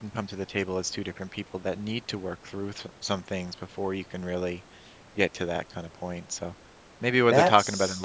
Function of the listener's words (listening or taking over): listening